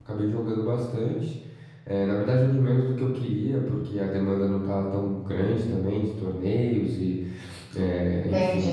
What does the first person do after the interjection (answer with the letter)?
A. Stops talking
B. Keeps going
A